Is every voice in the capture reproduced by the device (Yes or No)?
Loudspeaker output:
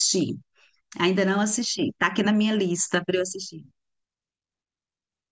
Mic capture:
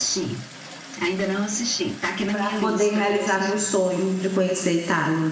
No